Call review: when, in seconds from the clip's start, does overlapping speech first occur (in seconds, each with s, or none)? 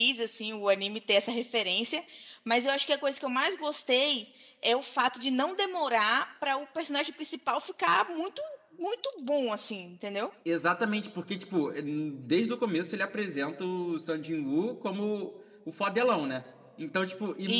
none